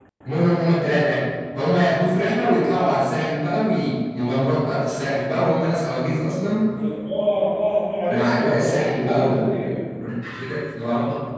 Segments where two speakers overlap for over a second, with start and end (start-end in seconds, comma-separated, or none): 8.1-9.7